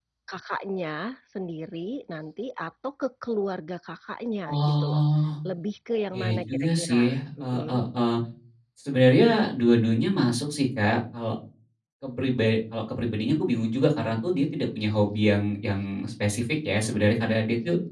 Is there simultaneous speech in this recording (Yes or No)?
Yes